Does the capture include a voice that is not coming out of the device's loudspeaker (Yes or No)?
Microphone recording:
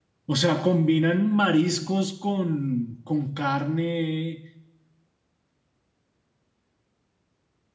Yes